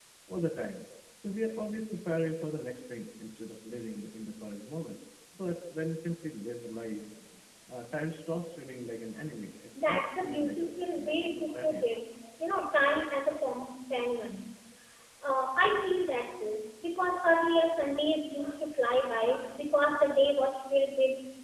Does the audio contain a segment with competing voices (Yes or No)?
Yes